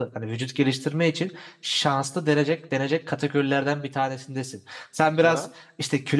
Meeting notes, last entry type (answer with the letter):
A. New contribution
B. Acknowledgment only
B